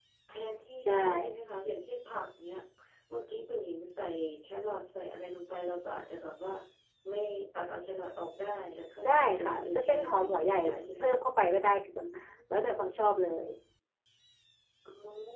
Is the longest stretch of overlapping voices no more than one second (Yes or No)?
No